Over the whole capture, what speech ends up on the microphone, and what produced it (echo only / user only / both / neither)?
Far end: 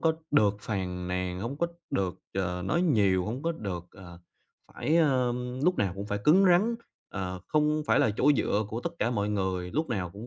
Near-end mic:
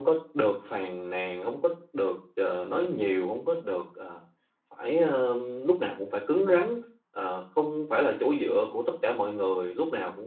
echo only